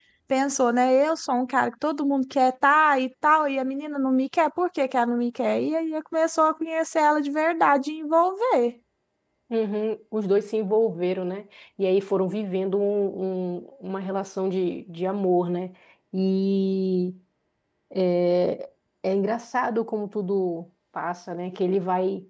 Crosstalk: none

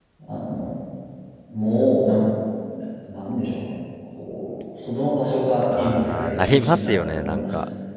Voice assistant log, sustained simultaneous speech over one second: present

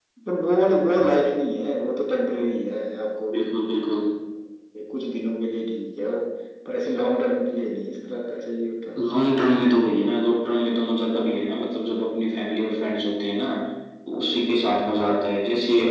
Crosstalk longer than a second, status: none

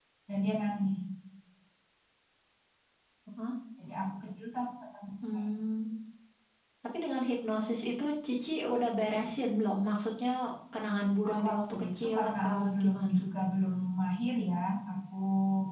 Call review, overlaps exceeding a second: present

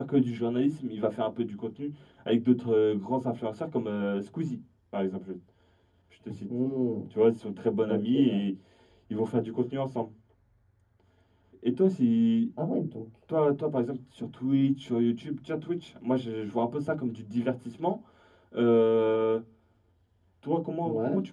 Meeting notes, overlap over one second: none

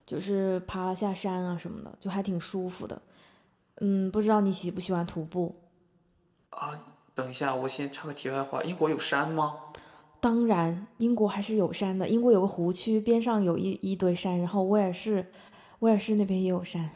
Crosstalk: none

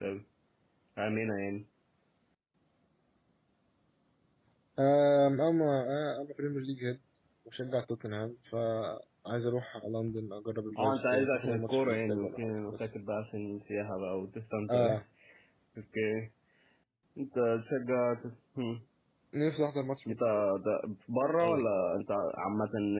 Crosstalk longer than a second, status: present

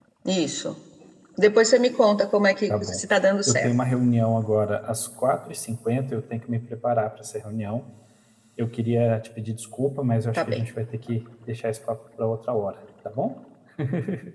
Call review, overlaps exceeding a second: none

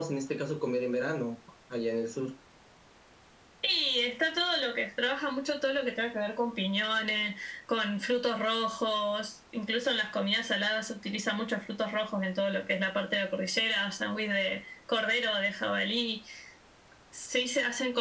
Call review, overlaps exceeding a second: none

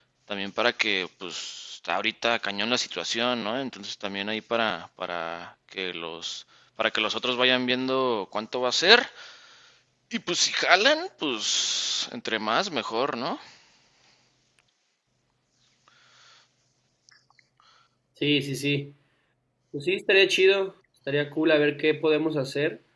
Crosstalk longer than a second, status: none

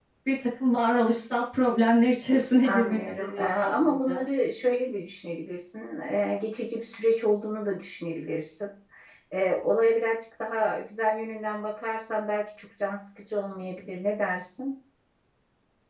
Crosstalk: present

